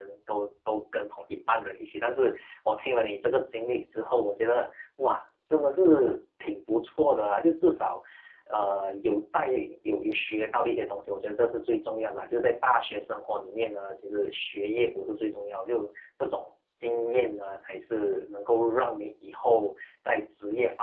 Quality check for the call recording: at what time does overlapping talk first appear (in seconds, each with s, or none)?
none